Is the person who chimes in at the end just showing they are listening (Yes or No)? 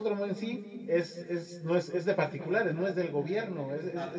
Yes